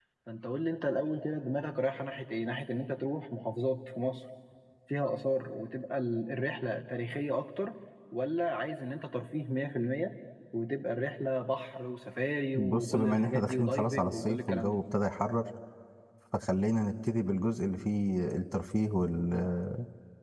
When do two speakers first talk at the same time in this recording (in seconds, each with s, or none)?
12.5 s